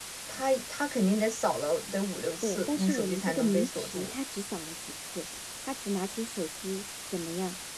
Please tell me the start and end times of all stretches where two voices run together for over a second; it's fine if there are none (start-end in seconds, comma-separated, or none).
2.4-4.1